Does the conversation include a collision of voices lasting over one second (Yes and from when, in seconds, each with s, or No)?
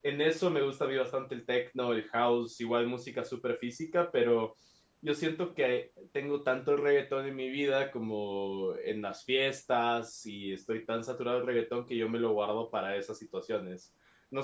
No